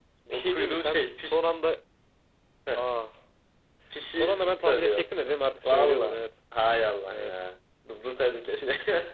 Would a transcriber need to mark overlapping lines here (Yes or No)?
Yes